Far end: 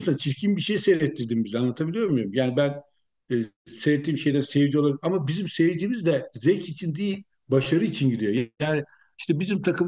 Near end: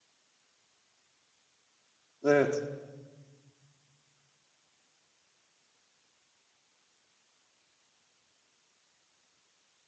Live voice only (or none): Evet.